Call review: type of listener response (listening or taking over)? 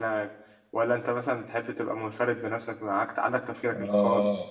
taking over